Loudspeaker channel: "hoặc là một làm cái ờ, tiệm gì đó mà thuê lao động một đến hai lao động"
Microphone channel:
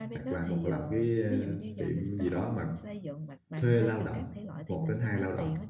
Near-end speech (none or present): present